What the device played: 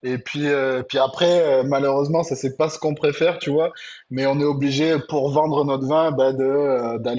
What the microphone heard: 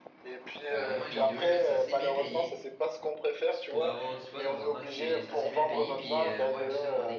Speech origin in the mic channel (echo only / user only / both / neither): both